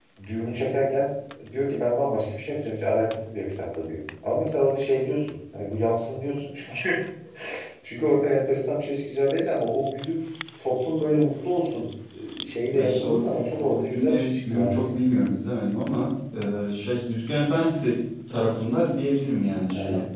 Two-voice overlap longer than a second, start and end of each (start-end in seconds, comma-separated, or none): 13.6-15.0